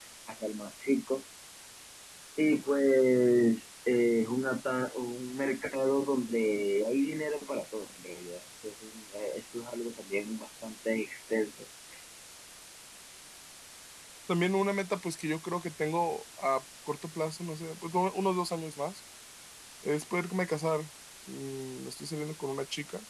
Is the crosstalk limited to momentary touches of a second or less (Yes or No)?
Yes